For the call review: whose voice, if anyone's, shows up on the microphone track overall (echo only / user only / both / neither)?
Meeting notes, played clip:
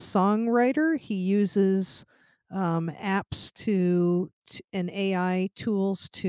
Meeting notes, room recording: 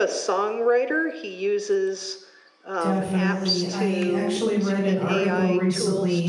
both